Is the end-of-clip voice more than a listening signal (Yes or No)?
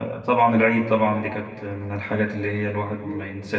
Yes